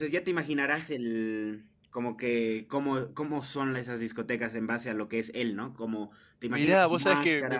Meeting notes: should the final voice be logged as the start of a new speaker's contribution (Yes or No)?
Yes